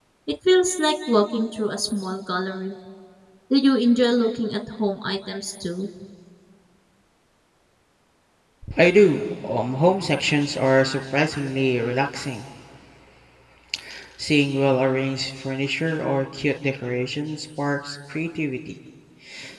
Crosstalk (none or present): none